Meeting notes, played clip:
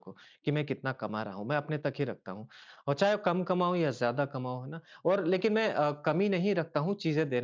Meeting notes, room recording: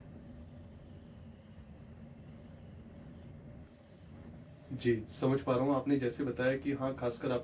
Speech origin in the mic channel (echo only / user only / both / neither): user only